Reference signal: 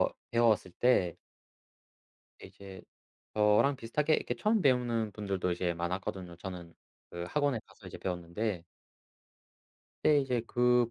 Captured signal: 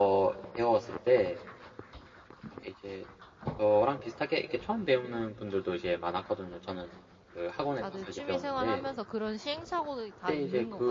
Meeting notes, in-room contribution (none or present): present